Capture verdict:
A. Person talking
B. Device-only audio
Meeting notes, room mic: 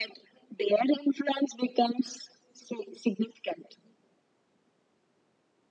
B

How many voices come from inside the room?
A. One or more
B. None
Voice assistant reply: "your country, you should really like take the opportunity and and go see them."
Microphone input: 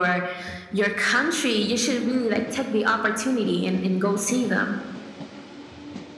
B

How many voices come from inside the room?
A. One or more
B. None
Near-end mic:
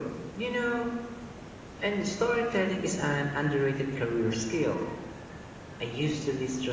B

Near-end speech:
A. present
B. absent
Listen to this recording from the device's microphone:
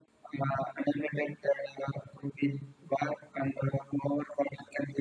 B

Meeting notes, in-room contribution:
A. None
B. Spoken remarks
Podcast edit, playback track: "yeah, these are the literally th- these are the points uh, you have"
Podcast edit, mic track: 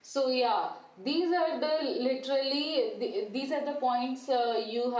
A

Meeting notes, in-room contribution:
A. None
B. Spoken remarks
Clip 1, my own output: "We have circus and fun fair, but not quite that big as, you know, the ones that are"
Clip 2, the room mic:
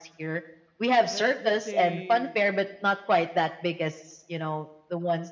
B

